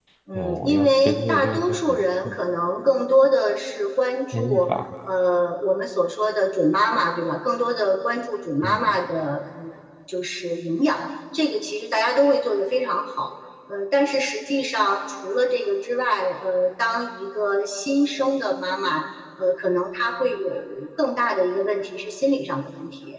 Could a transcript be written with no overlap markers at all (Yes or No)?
No